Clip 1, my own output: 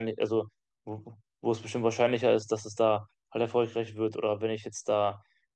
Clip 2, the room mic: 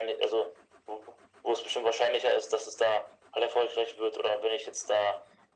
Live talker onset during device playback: none

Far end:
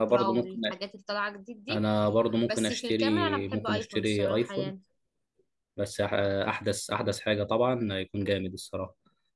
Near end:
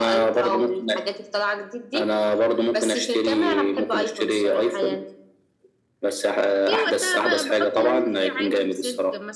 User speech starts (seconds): 6.6 s

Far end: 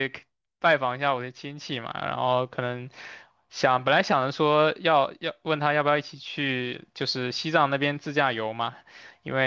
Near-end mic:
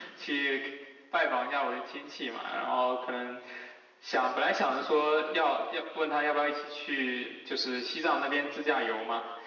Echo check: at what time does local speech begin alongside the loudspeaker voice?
none

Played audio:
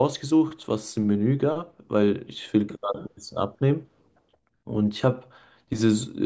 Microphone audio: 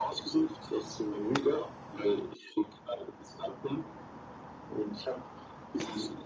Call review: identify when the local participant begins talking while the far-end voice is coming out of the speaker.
none

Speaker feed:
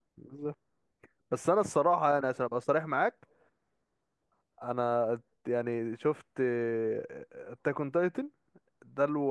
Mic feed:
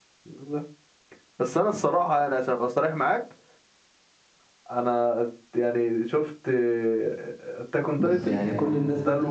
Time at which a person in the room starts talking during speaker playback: 8.0 s

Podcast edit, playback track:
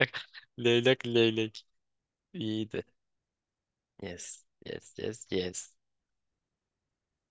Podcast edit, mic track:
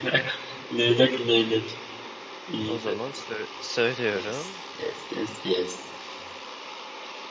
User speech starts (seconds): 2.6 s

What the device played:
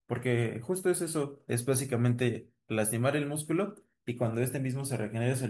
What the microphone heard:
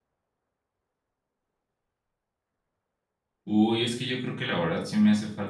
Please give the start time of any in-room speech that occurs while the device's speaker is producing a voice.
3.5 s

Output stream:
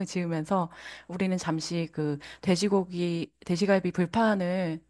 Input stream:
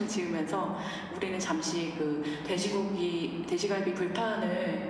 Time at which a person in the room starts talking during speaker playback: none

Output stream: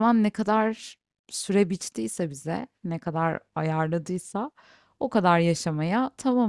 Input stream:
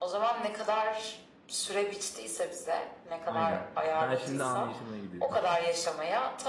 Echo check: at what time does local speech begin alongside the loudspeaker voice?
3.2 s

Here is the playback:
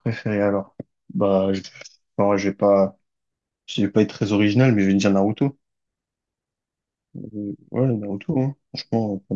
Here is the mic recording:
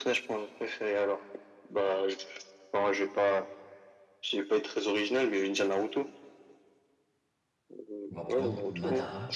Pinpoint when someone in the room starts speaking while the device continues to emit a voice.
8.1 s

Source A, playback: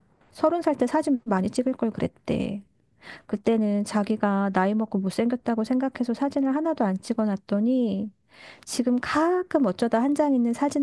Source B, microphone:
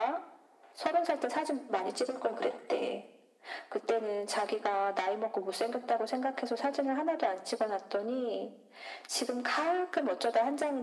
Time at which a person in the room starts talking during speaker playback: none

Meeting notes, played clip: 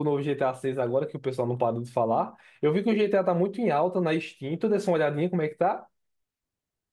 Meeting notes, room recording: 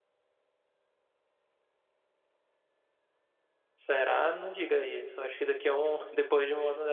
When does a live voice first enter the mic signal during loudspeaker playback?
3.8 s

